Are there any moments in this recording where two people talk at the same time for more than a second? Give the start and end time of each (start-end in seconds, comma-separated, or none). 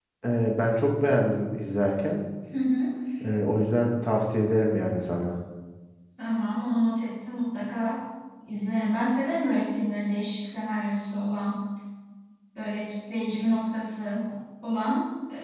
none